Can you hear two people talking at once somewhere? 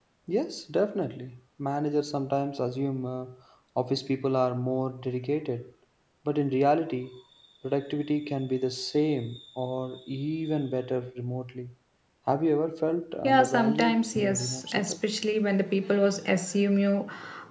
Yes, from 13.2 s

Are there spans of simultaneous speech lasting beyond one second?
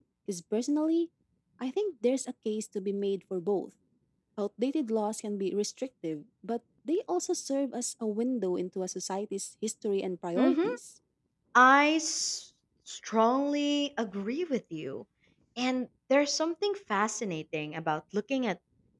No

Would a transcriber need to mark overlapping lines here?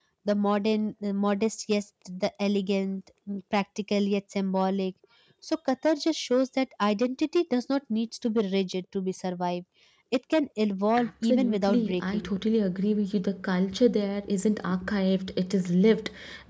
Yes, from 11.0 s

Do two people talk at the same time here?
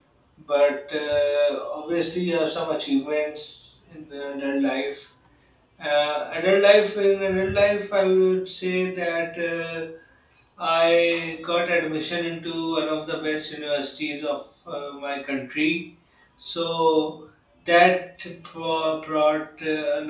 No

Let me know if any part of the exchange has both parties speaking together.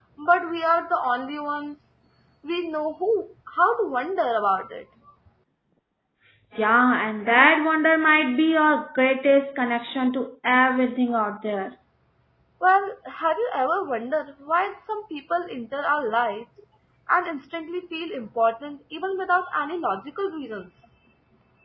No

